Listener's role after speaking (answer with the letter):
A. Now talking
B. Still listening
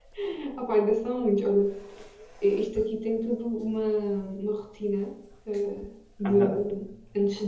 B